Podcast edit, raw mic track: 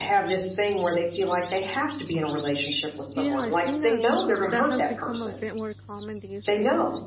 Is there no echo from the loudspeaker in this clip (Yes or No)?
No